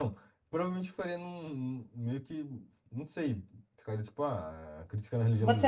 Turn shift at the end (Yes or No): Yes